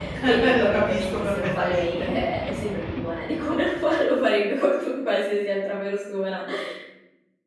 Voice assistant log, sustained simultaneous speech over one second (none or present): present